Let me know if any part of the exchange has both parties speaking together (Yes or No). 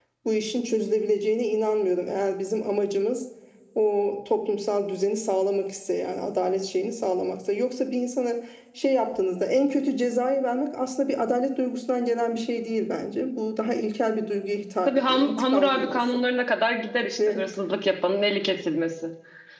Yes